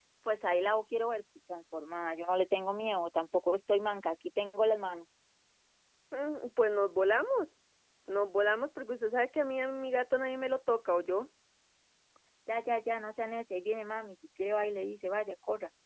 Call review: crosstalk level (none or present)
none